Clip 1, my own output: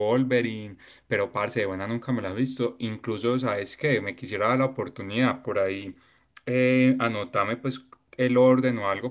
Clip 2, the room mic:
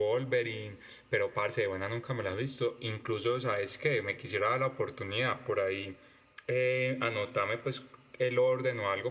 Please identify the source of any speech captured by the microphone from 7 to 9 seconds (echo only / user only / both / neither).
echo only